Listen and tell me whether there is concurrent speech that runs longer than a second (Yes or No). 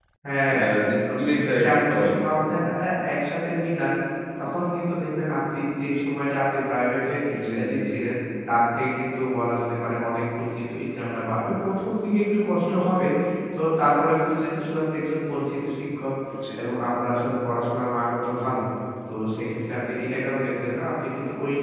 Yes